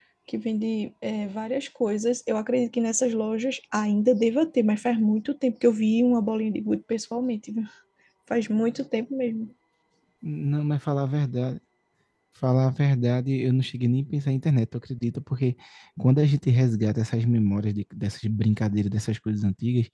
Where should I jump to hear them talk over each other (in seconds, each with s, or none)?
none